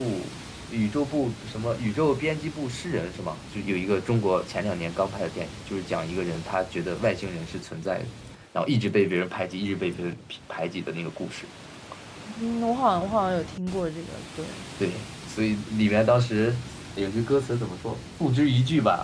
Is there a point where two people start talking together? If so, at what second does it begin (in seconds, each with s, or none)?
none